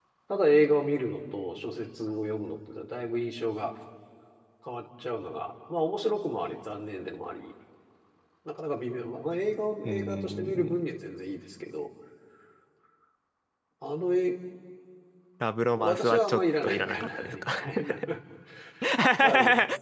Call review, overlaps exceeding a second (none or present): present